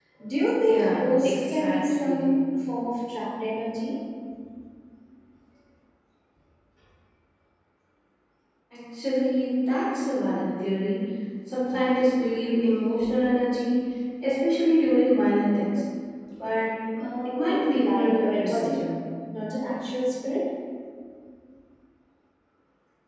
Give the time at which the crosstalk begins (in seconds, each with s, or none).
0.7 s